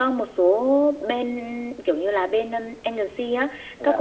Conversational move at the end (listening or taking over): listening